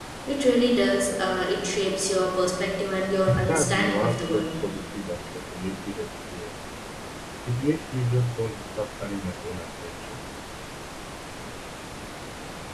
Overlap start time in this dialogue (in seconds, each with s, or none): 3.3 s